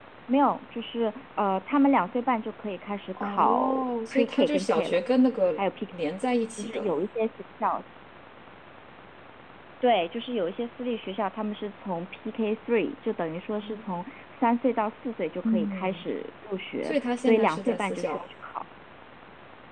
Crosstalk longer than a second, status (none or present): present